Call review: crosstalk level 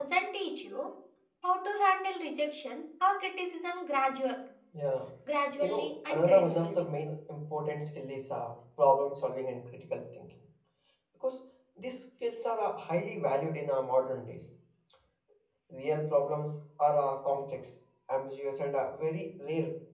present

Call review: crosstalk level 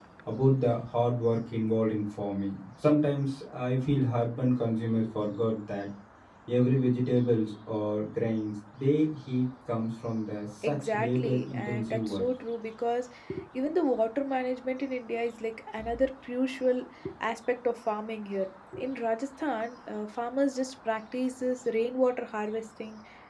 present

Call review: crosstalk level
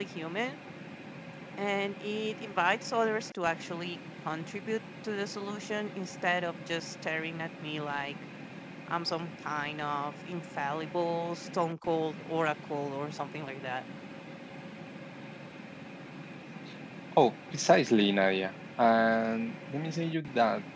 none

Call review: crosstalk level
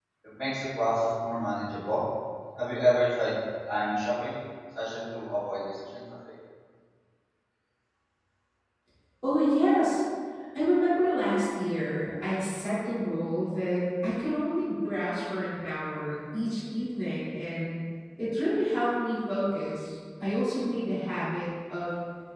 none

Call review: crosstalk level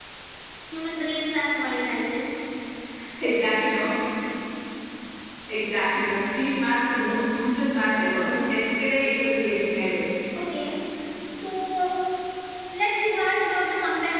none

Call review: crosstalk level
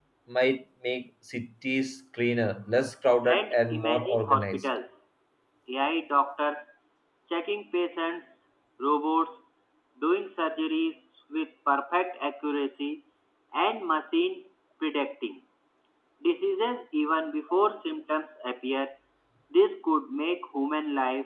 present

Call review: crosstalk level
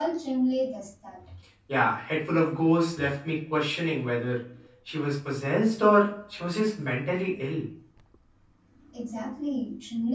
none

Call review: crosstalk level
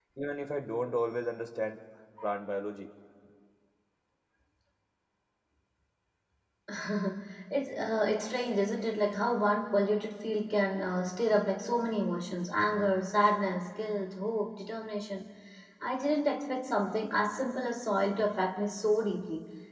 none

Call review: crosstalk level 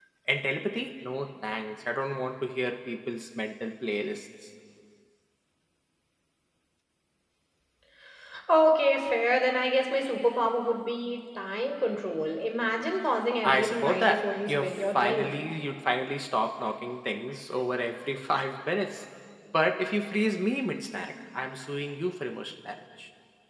present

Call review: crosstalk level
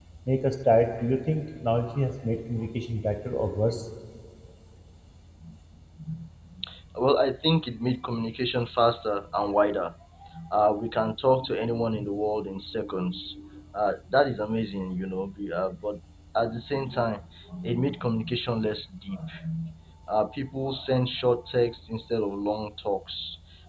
none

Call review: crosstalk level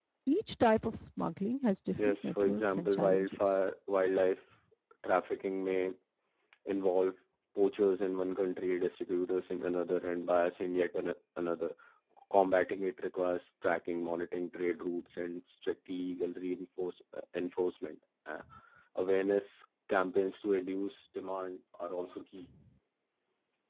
present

